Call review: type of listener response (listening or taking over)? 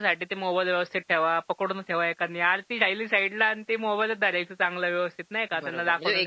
taking over